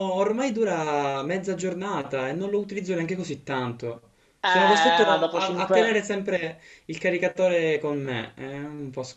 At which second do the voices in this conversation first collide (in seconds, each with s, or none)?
4.4 s